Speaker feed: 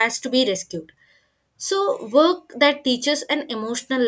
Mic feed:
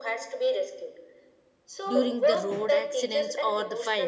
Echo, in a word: present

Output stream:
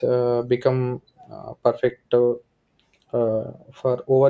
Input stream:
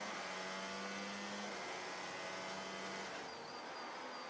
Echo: none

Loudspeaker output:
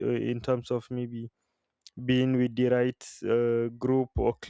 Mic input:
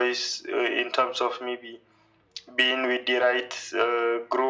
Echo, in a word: present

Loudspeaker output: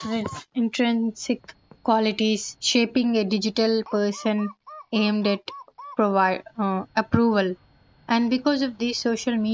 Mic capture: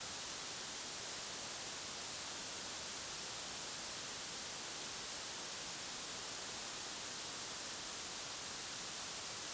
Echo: none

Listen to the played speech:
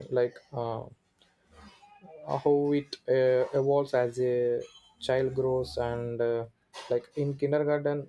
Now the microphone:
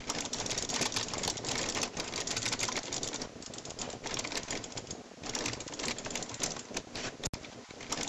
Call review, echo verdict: none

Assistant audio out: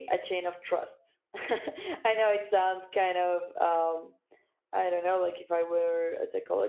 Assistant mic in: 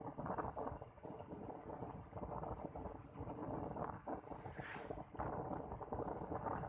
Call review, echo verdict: none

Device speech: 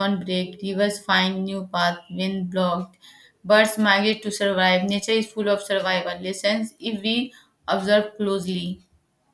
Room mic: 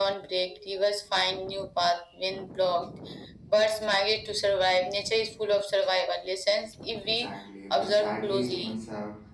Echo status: present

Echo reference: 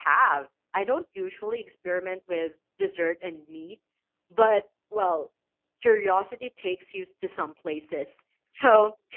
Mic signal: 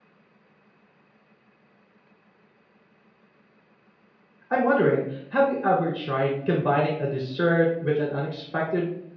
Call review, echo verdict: none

